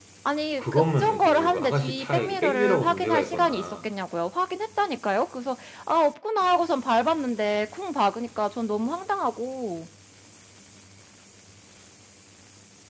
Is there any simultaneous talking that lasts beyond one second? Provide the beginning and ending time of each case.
0.6-3.8

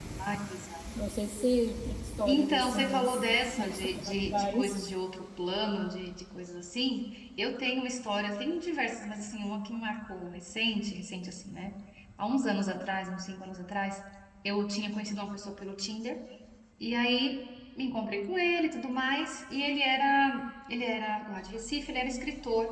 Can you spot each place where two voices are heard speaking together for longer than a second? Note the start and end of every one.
2.3-4.8

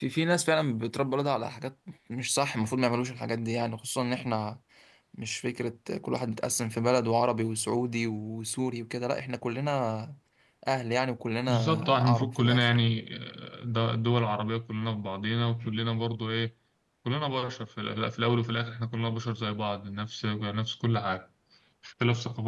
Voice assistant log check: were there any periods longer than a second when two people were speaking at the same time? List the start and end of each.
11.5-12.8

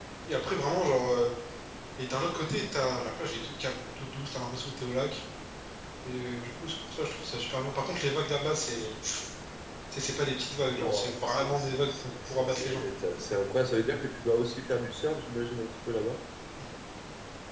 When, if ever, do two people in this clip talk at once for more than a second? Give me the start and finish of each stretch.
10.6-12.8

